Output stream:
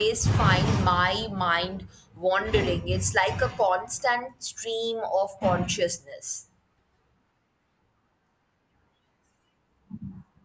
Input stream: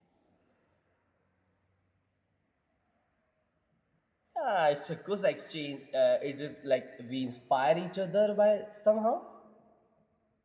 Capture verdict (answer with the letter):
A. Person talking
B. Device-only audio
A